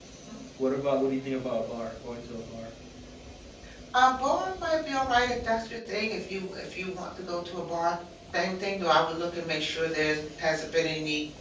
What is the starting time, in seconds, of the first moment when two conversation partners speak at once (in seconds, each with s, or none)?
none